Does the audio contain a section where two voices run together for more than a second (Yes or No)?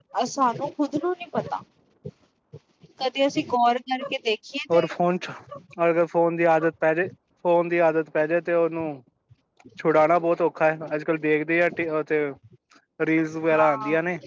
No